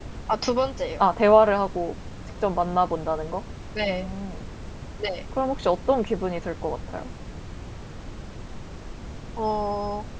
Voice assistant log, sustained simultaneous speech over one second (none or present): none